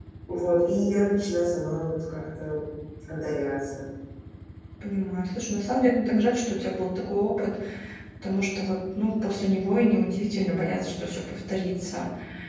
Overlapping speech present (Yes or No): No